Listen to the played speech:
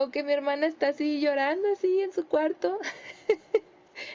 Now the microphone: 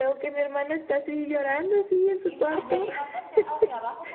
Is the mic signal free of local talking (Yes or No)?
No